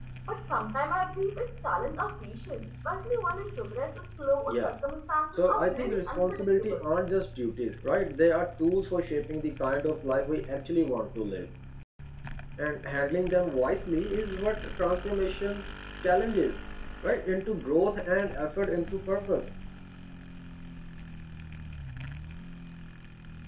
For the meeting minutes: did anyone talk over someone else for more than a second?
Yes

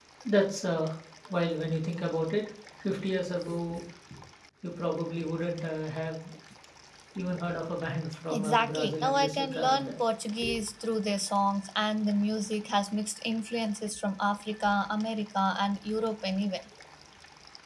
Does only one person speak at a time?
No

